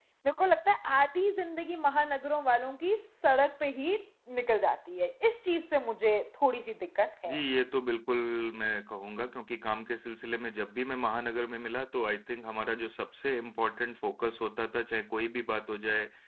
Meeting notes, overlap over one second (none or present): none